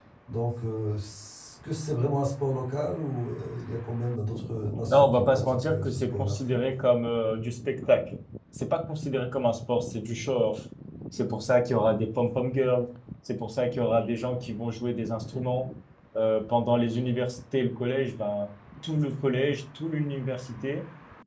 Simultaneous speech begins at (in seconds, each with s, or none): 4.9 s